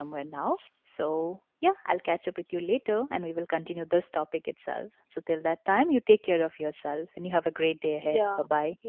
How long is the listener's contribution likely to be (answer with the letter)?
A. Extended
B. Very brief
A